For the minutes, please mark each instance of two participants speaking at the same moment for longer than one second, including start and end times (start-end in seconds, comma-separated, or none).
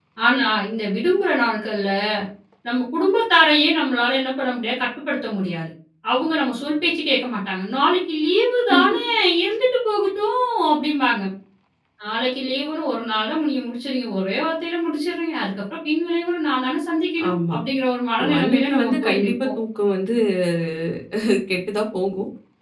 18.2-19.5